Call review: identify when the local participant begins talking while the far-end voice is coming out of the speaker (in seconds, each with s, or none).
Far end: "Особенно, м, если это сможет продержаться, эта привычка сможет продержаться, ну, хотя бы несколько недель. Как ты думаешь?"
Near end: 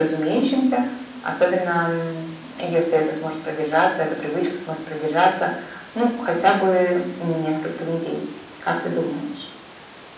none